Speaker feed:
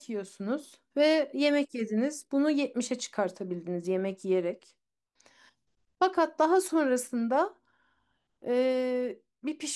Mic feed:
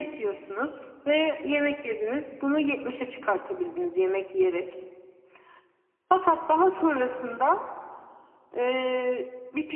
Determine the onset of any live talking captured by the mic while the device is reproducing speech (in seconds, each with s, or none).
none